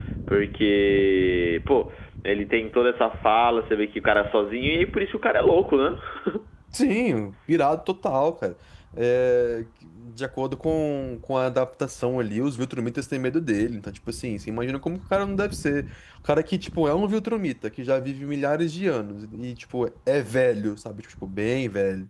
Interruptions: none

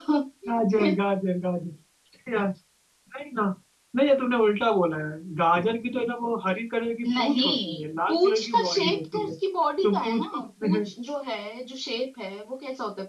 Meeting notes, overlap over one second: present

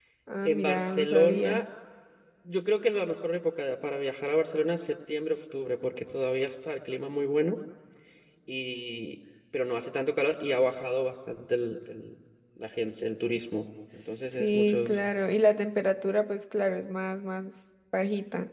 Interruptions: present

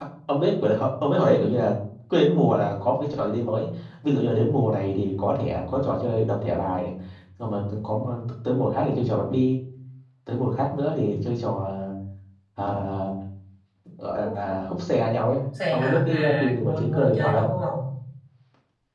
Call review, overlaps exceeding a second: present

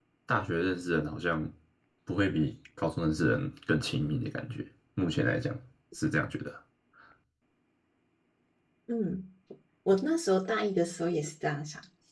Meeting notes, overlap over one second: none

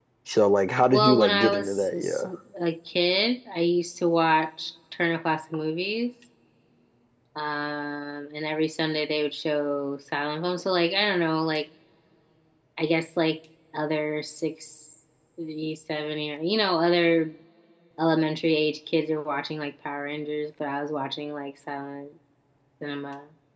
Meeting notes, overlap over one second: present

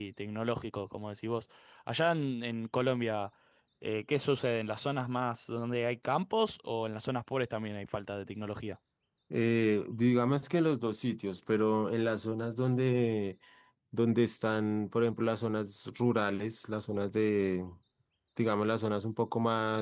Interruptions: none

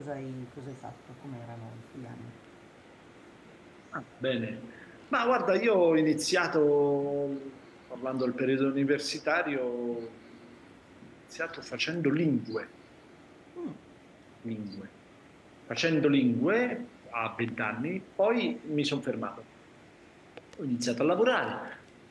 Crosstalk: none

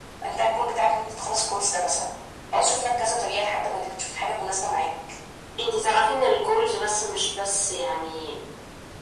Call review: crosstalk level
none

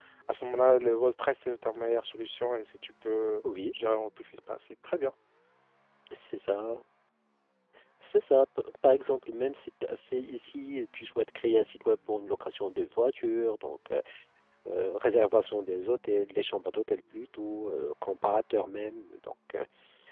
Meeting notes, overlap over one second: none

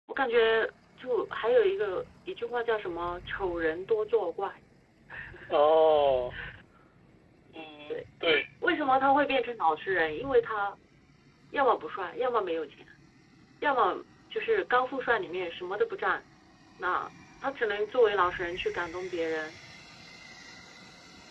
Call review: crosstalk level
none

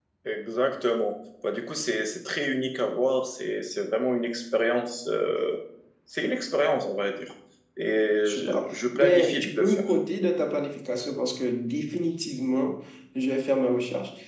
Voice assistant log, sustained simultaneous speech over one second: present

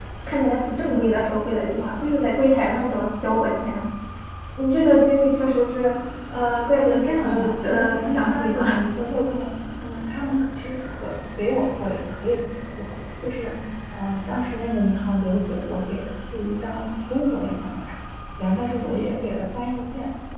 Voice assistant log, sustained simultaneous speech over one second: present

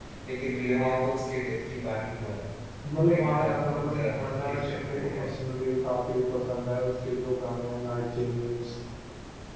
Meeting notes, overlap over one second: present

